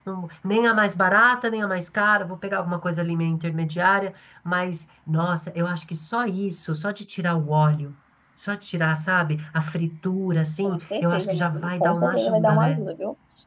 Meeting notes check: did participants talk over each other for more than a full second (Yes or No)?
Yes